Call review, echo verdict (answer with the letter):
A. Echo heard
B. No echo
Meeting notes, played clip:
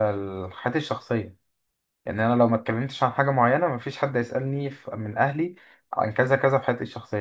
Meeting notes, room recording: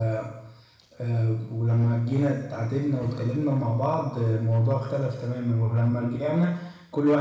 B